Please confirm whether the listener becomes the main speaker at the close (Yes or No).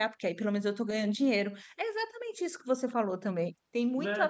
Yes